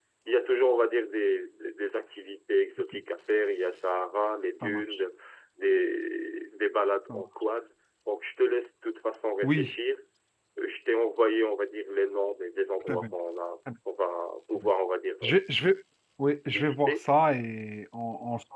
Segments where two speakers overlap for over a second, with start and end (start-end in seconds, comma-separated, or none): none